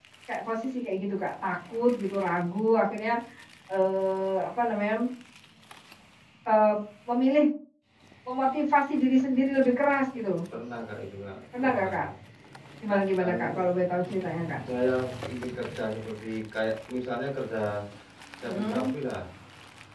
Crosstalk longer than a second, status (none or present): none